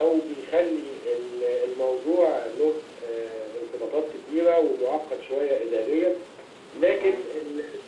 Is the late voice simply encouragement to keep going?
Yes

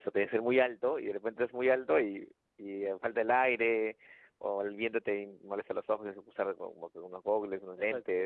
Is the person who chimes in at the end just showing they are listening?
No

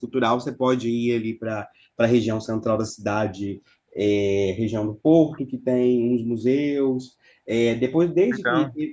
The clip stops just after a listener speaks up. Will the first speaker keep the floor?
Yes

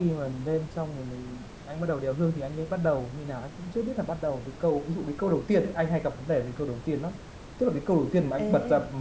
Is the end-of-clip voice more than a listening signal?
No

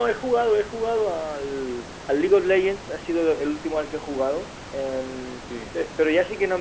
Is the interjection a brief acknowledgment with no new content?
Yes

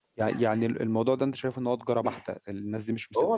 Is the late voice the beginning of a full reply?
No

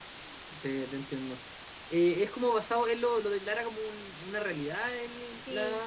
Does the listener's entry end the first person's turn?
Yes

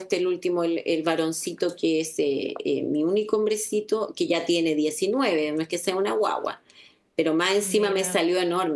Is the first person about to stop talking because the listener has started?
No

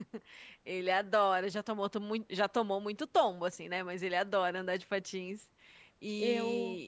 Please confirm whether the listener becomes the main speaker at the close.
No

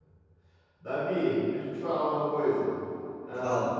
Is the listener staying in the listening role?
Yes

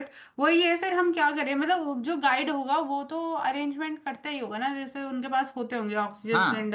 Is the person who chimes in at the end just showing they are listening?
No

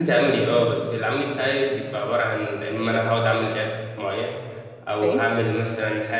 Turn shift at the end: No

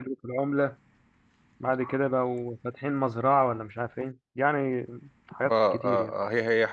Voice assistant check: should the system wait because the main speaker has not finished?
No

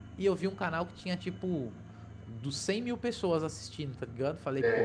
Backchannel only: Yes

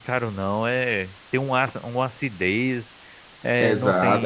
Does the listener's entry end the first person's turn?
Yes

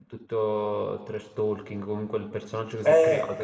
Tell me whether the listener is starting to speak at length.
Yes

